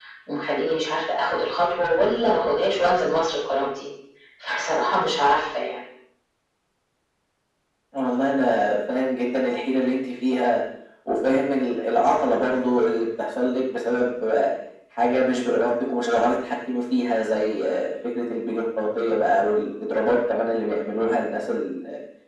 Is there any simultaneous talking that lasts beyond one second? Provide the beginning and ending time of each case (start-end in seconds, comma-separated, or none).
none